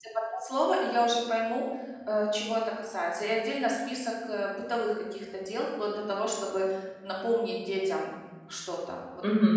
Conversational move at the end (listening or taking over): taking over